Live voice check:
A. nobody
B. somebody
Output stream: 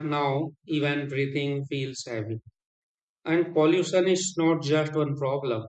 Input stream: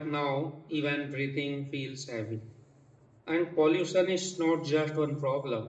A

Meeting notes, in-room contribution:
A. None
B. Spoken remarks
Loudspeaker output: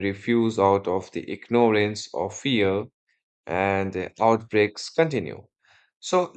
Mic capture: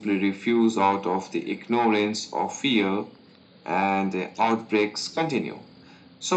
A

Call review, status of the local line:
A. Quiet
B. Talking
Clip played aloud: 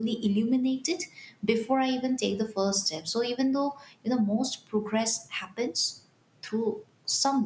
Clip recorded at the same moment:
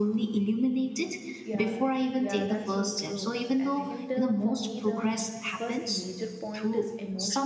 B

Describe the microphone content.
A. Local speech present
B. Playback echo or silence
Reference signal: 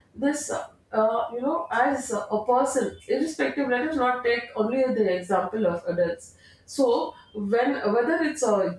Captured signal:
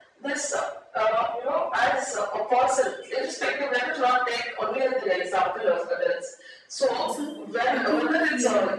A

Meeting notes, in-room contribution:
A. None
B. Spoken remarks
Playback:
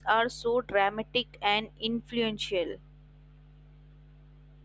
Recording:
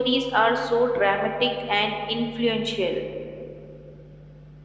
A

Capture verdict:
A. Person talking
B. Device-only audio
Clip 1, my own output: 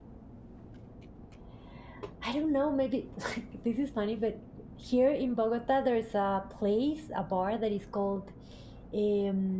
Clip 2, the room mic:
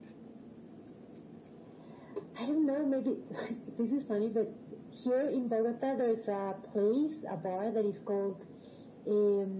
B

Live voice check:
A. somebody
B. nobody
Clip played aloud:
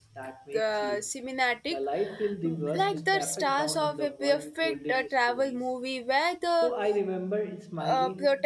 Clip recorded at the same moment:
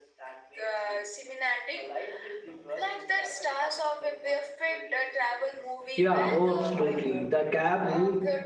A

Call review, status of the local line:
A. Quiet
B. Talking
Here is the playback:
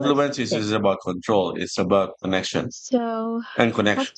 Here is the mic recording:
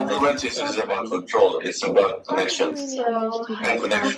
B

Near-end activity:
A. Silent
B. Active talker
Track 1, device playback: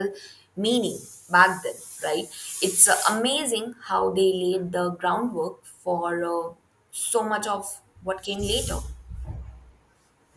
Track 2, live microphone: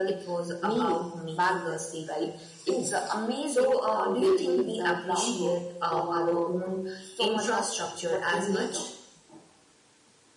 B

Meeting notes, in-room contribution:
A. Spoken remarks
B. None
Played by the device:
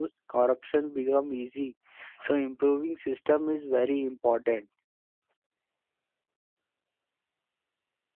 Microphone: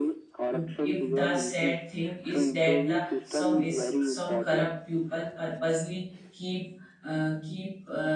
A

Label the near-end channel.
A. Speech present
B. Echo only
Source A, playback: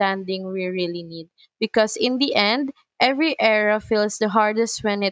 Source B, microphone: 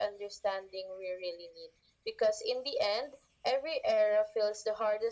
B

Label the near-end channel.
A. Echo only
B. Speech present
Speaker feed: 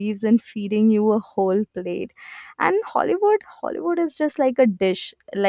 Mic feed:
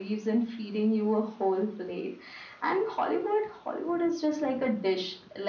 A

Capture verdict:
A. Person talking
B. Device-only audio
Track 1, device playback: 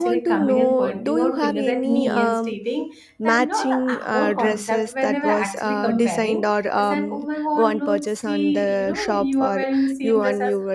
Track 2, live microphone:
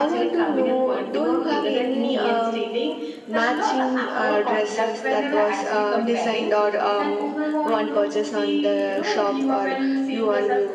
B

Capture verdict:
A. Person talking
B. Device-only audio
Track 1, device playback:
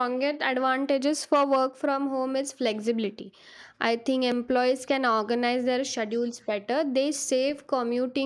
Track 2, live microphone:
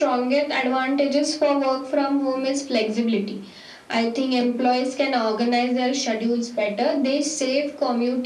B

